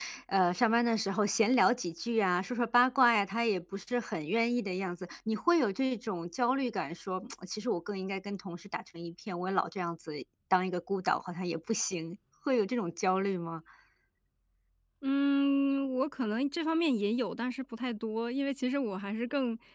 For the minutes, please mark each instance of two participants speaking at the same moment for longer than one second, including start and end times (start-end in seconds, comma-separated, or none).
none